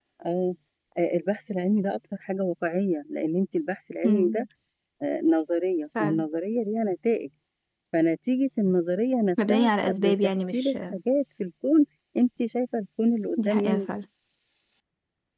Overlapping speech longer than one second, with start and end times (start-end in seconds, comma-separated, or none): 9.5-10.7